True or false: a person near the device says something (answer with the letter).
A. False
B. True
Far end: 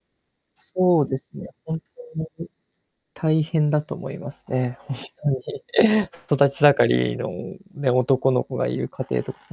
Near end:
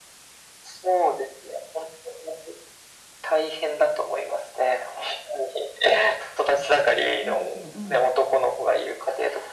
B